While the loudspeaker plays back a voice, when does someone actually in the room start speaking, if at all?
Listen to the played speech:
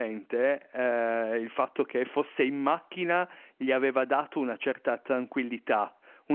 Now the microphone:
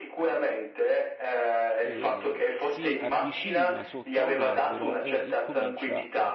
1.8 s

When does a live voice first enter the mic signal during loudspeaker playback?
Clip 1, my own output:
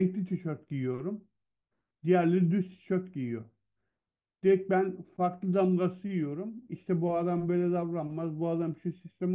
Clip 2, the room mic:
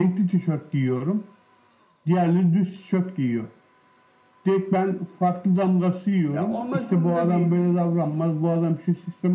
6.3 s

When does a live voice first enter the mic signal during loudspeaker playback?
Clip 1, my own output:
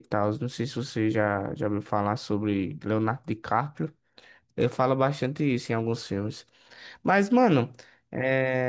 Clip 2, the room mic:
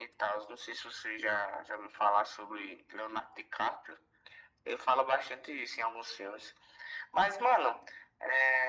none

